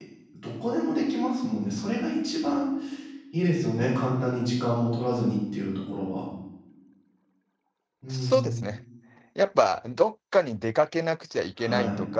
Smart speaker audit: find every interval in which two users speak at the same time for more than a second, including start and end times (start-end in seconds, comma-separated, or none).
none